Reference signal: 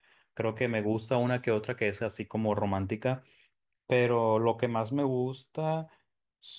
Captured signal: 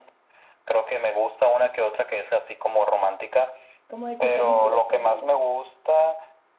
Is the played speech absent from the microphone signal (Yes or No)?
No